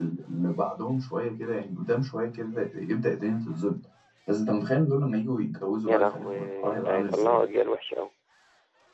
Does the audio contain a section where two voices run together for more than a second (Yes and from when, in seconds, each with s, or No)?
Yes, from 5.8 s